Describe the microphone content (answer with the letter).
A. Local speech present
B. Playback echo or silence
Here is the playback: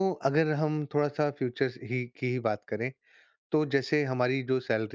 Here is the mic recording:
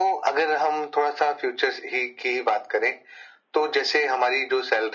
B